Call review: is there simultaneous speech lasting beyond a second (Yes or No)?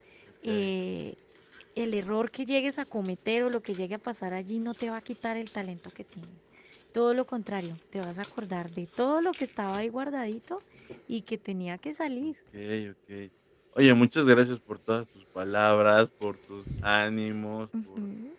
No